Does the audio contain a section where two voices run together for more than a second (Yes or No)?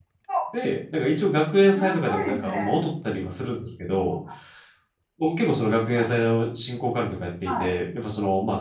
Yes